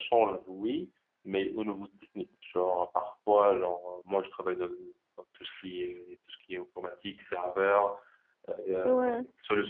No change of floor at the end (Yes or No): Yes